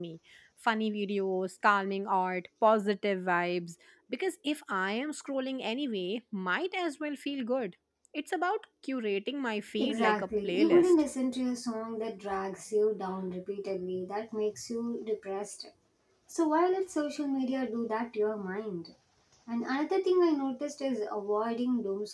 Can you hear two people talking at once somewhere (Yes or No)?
Yes